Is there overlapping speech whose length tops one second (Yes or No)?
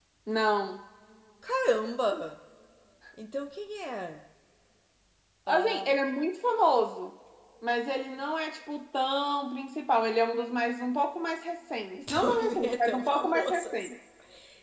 Yes